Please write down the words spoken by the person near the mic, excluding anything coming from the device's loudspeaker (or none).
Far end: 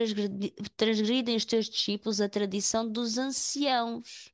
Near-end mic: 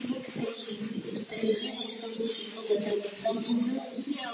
none